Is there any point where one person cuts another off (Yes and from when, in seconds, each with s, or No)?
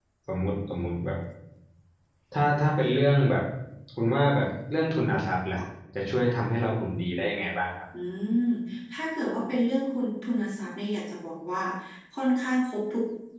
No